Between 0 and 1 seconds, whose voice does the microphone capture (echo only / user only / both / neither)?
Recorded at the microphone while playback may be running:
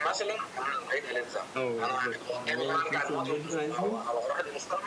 echo only